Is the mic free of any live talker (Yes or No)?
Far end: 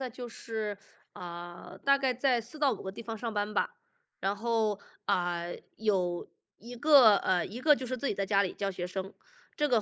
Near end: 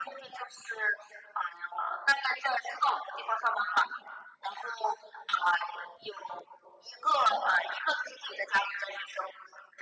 Yes